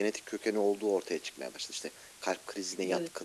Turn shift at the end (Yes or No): No